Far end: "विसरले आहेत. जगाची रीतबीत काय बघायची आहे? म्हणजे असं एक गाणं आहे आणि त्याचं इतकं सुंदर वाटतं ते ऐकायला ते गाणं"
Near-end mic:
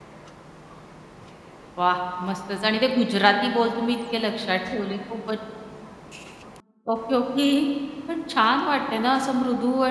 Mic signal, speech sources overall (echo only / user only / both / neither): user only